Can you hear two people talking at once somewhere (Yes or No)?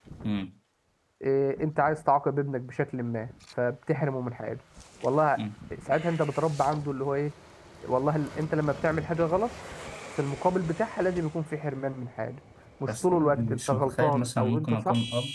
Yes